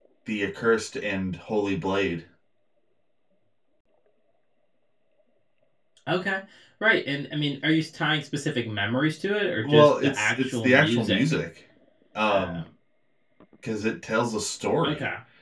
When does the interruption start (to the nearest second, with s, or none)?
10 s